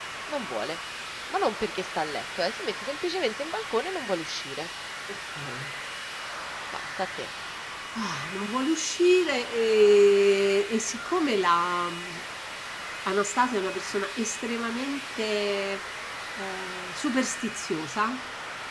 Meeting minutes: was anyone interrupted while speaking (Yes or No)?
No